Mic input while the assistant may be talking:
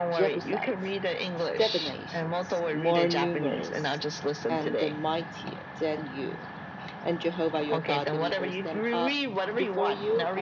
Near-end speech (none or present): present